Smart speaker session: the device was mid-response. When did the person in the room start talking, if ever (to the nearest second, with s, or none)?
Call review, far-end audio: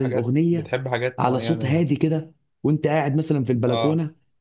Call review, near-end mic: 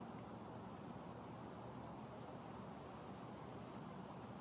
none